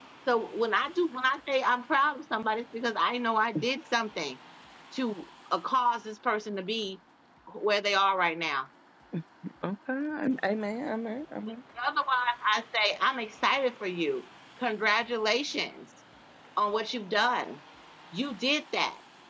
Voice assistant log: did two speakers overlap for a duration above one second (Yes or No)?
No